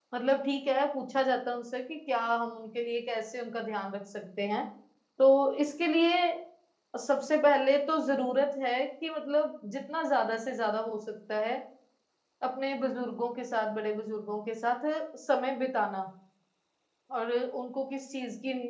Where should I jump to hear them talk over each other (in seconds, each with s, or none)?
none